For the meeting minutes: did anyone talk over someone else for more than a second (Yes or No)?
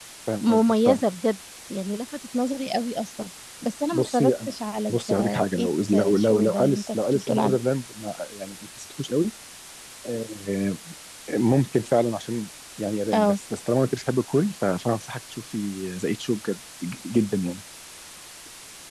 Yes